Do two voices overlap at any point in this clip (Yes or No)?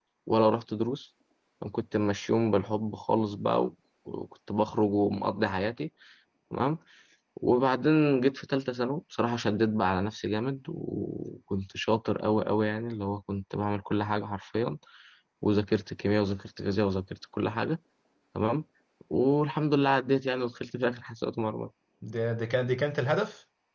No